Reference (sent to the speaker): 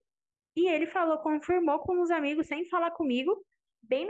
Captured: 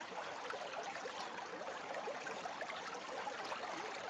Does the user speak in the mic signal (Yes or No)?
No